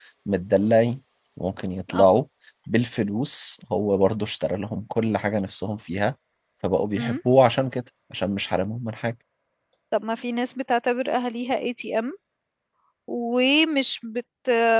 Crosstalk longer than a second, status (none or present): none